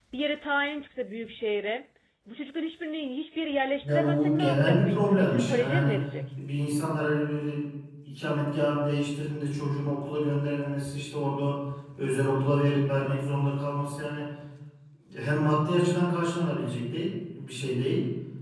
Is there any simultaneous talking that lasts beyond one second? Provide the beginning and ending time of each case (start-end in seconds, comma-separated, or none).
3.8-6.0